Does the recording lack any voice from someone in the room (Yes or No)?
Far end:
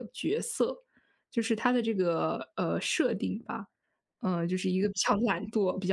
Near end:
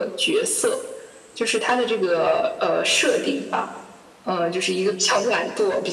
Yes